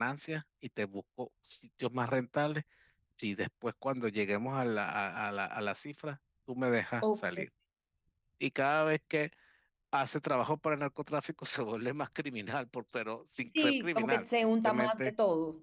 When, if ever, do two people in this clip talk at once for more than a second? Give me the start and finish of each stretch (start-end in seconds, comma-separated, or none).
13.6-15.1